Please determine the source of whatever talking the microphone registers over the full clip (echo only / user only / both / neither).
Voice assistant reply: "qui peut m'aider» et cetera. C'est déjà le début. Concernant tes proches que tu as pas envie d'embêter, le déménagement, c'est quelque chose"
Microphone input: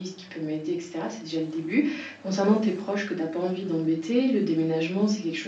echo only